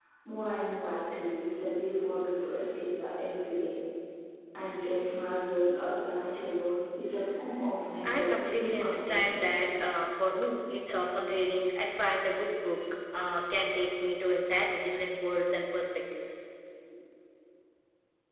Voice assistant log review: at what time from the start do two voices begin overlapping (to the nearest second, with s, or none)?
8 s